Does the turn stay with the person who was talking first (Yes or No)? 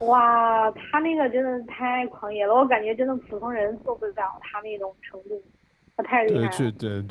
No